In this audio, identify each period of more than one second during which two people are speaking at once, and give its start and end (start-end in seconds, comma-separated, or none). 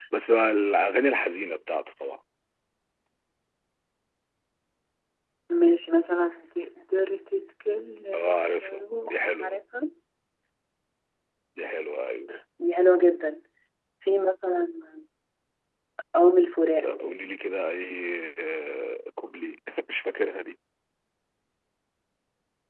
8.1-9.6